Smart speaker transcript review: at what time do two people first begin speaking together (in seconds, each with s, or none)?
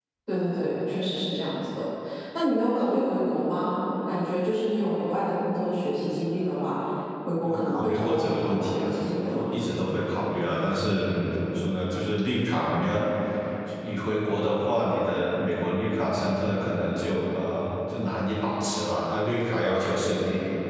7.4 s